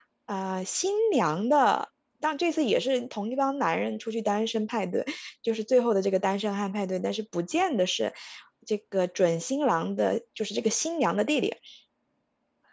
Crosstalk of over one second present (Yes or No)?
No